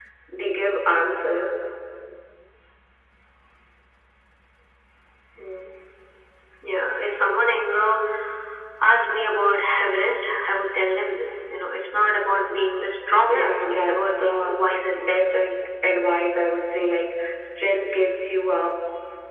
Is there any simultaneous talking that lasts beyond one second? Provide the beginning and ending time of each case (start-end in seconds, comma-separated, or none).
13.3-14.6